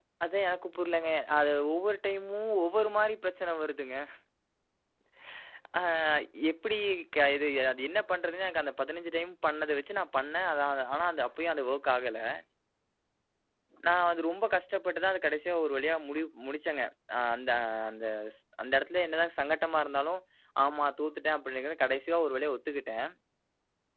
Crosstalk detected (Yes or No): No